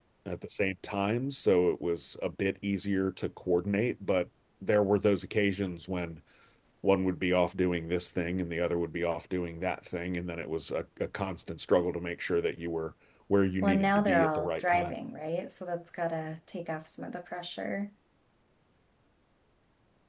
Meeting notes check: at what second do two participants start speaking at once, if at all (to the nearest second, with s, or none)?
14 s